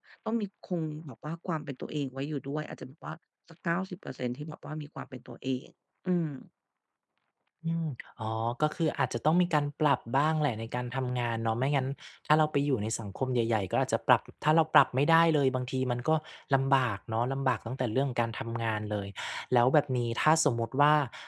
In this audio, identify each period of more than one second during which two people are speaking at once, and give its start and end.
none

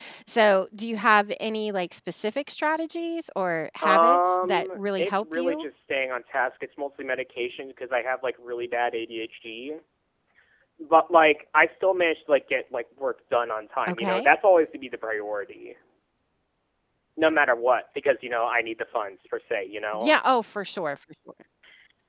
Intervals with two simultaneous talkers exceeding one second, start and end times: 3.8-5.6

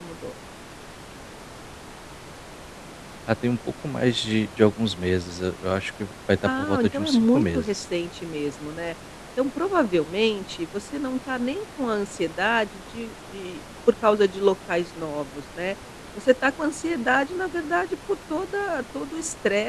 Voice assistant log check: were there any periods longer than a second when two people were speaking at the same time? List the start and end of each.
6.4-7.8

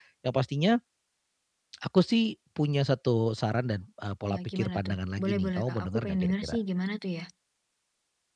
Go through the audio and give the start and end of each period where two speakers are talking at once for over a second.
4.2-6.6

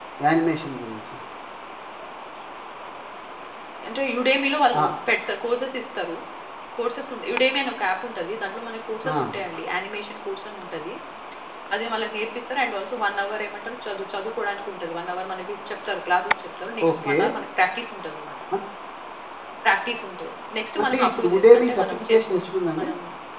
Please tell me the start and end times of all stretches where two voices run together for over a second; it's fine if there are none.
20.8-22.9

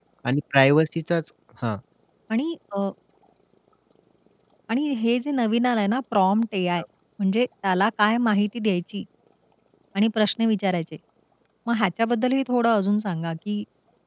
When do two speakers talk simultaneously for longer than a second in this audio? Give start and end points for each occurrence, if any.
none

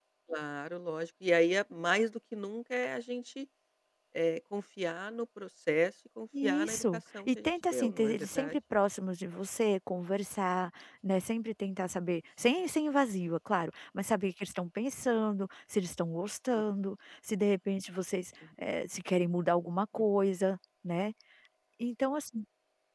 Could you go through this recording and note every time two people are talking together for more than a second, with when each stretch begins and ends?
6.4-8.6

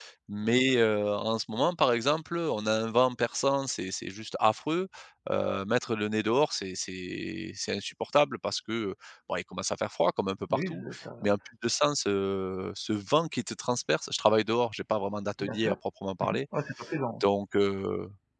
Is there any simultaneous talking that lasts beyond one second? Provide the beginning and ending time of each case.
none

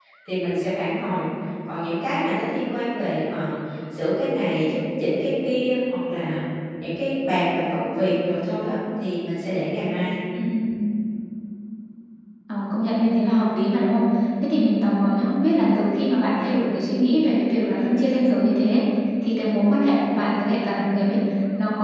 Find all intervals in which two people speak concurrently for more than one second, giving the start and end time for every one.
none

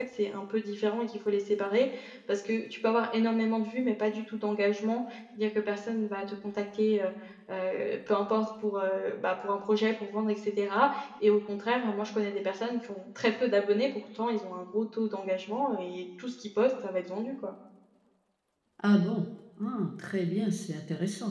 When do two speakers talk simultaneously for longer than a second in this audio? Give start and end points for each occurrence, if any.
none

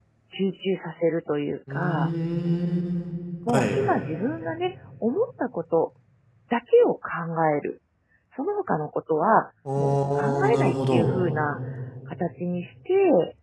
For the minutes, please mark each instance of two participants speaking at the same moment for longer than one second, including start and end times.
9.8-11.1

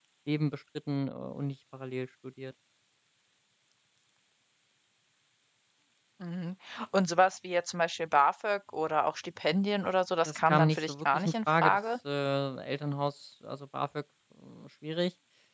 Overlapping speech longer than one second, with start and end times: 10.2-11.8

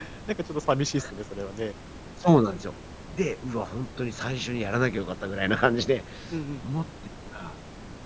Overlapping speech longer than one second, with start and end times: none

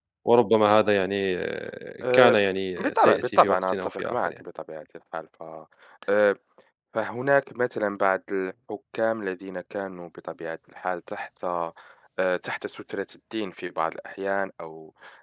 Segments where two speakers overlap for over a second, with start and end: 2.8-4.3

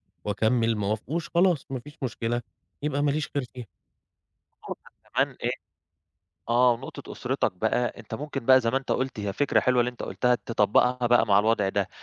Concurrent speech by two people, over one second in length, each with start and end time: none

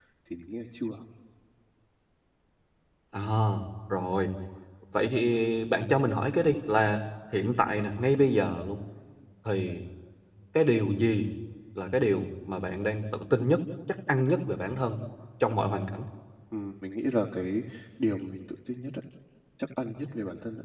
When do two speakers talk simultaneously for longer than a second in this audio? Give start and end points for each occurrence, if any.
none

